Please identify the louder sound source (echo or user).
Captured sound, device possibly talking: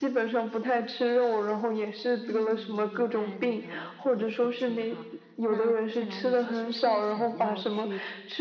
echo